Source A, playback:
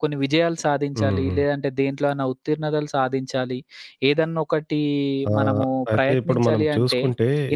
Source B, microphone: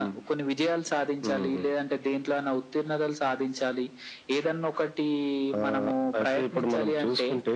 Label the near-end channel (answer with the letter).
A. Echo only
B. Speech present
A